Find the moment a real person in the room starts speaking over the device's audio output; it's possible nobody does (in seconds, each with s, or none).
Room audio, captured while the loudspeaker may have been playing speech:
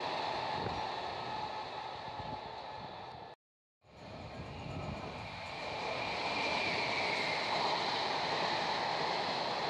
none